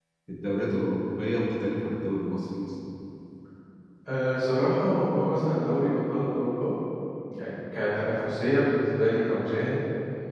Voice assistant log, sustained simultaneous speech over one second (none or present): none